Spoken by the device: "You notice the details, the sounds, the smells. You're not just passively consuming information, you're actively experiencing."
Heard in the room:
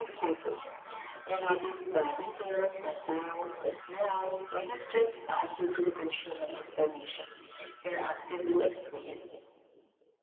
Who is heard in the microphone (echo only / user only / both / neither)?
echo only